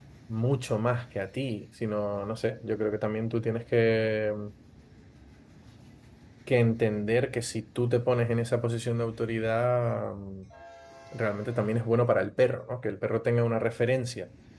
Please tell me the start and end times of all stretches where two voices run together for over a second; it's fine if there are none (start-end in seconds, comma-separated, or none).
none